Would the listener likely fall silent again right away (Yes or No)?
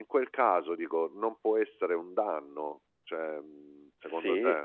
No